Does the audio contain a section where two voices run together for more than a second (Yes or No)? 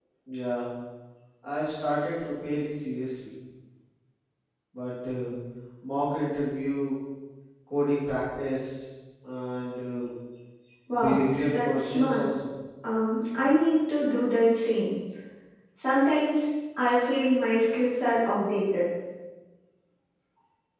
Yes